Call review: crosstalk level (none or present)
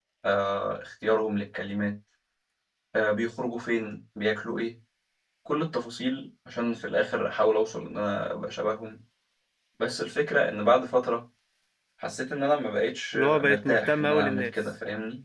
present